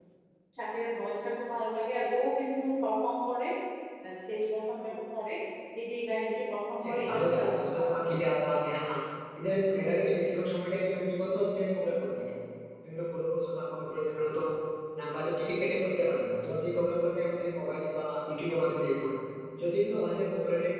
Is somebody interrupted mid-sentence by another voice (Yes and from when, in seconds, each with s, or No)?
Yes, from 6.8 s